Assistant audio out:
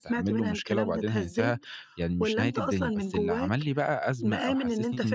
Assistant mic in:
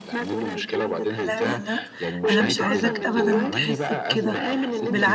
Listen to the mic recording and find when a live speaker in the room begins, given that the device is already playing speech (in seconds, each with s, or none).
1.3 s